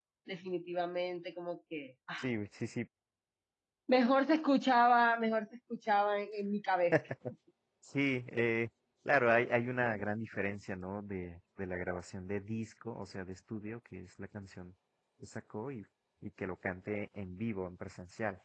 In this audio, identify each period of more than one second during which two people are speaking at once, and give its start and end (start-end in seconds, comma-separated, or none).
none